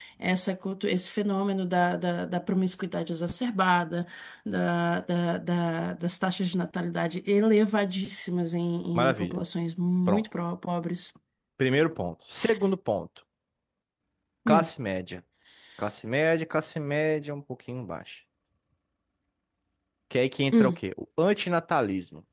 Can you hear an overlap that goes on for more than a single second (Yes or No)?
No